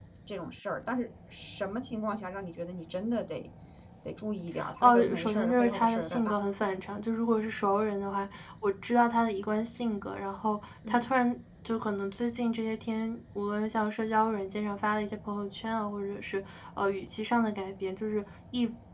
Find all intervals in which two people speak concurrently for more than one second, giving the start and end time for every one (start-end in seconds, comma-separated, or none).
4.8-6.3